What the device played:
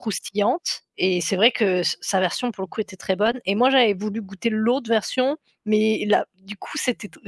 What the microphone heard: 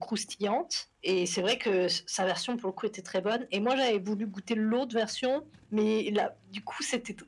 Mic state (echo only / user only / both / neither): echo only